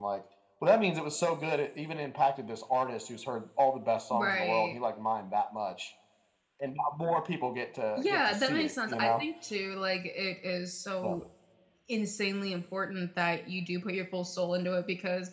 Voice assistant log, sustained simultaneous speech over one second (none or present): present